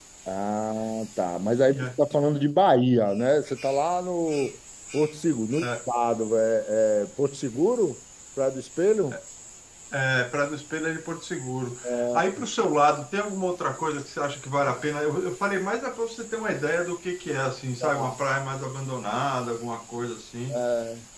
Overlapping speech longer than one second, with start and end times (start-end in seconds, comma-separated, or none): none